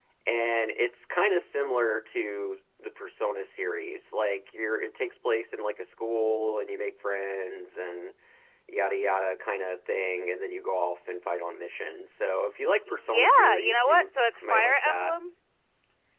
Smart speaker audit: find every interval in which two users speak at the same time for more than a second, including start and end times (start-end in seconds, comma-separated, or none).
12.9-15.1